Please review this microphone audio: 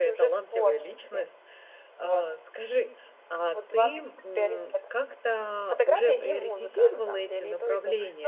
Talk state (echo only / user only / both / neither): both